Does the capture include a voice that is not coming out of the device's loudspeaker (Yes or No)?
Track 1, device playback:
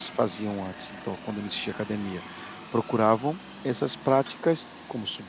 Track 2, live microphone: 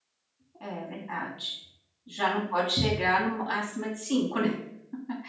Yes